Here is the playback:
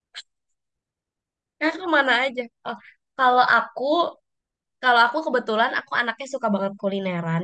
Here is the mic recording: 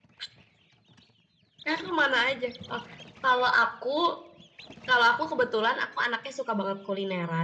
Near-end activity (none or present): none